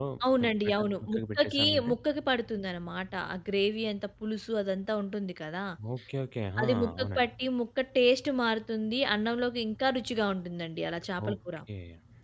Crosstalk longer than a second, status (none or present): present